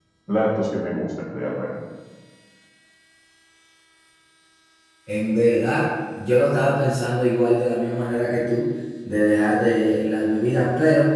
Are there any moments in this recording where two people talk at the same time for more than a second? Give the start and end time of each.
none

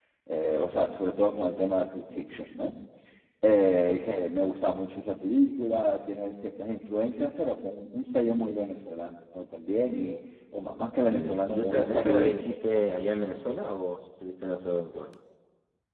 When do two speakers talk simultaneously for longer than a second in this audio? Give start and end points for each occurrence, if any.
11.2-12.5

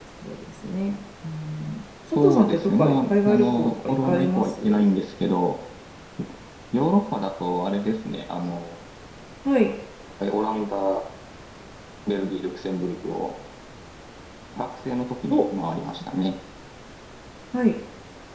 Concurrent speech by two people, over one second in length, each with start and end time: 2.1-4.8

